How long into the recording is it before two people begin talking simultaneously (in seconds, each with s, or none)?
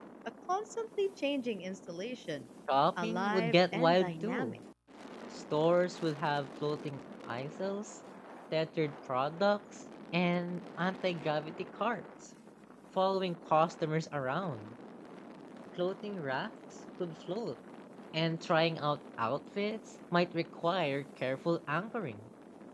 3.0 s